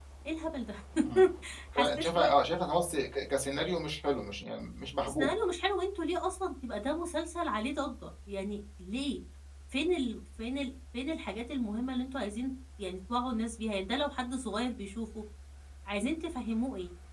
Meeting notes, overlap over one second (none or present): none